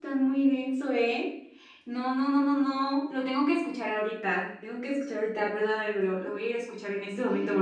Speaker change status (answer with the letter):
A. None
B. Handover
B